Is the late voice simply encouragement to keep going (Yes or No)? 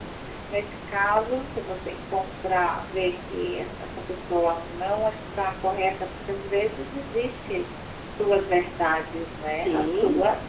No